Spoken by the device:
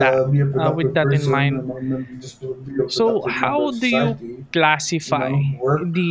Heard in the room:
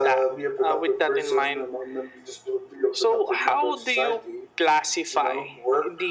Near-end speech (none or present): none